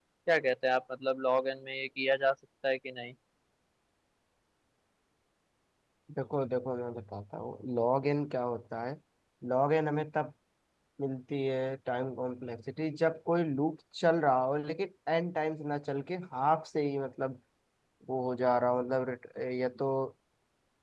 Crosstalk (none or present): none